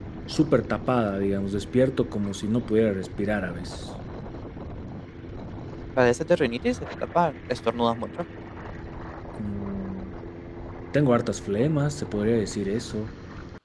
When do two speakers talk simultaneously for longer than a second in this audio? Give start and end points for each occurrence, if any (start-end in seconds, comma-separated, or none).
none